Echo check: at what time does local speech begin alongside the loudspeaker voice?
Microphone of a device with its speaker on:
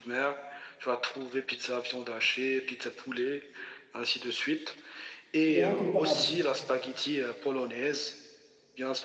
5.5 s

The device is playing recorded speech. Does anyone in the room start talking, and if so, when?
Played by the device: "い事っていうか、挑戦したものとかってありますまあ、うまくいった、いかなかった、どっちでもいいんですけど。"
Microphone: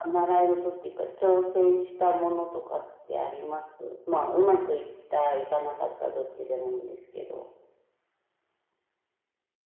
none

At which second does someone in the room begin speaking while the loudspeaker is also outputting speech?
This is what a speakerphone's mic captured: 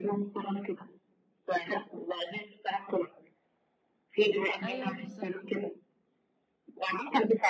4.6 s

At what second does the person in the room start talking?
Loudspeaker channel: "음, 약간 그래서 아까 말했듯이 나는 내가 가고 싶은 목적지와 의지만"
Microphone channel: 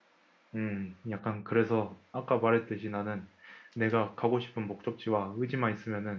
none

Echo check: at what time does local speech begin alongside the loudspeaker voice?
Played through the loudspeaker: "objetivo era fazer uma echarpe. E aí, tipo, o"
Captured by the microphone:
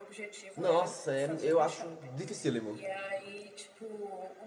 0.6 s

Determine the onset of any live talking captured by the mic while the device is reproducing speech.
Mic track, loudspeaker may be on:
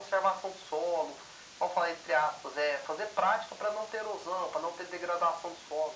none

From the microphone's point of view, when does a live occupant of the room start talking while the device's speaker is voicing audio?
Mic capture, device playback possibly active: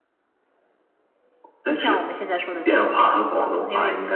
none

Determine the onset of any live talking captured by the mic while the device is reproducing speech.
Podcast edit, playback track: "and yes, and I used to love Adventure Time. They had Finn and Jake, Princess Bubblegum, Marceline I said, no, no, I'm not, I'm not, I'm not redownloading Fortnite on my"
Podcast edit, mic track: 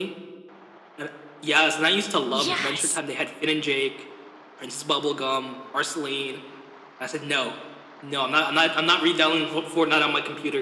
2.3 s

